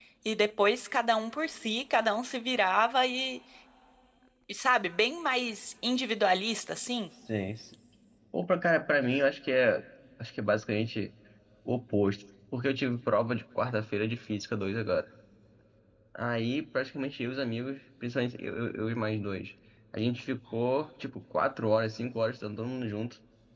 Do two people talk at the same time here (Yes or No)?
No